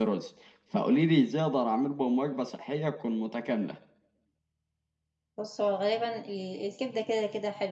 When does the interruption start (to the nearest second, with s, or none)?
none